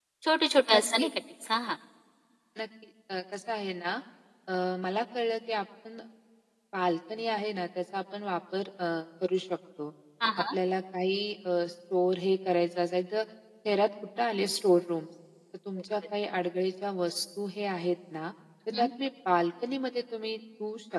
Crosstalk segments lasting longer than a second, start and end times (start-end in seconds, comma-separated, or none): none